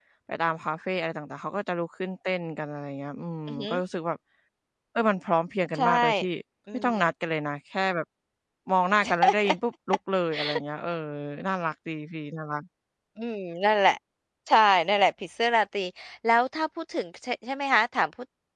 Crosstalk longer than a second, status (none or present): none